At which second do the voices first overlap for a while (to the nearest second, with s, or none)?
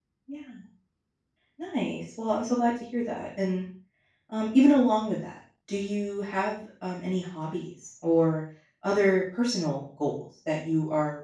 none